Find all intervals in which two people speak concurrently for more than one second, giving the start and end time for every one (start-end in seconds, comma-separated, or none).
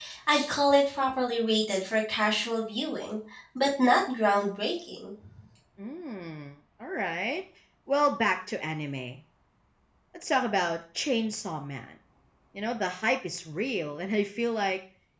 none